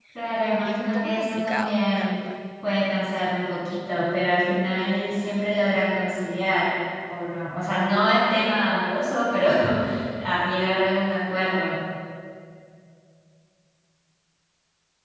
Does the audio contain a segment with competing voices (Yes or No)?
Yes